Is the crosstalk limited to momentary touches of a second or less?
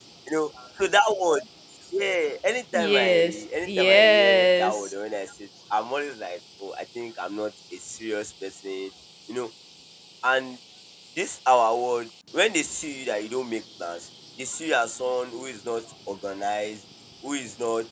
No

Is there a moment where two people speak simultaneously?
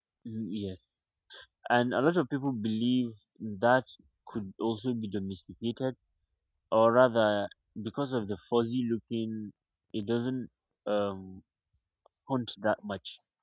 No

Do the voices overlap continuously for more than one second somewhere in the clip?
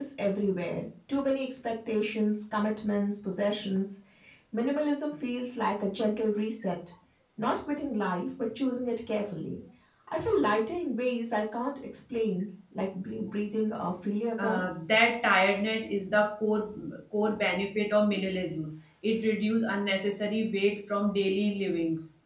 No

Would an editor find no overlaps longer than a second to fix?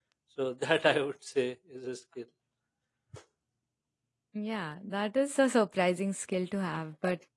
Yes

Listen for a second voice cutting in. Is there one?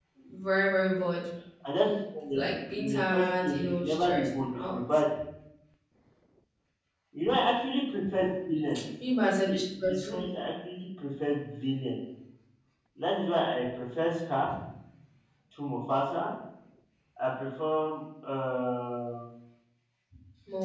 Yes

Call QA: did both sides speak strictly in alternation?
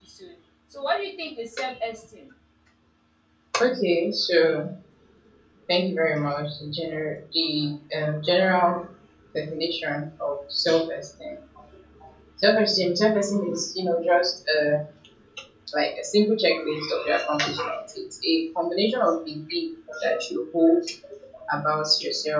Yes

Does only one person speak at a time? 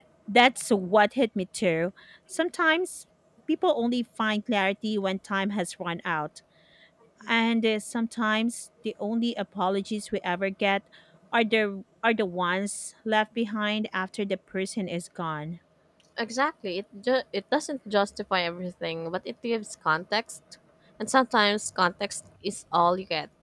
Yes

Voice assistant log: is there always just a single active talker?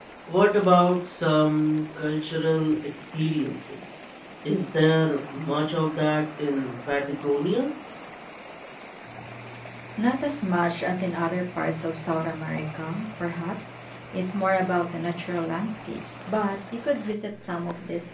Yes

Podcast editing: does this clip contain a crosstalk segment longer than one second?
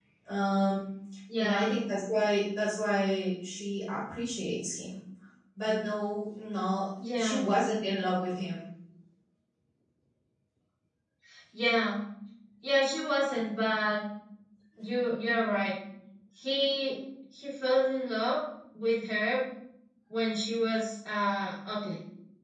No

